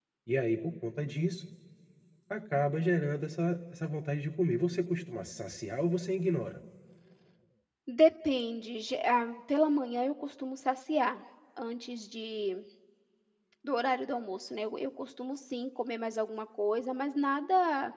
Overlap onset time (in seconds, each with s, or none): none